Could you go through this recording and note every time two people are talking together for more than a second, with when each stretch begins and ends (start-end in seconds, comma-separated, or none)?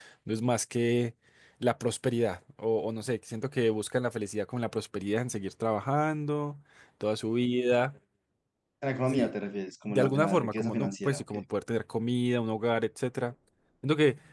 9.9-11.3